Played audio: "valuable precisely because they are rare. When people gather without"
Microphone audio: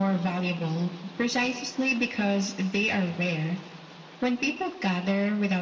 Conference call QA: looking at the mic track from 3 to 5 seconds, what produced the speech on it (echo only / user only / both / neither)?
echo only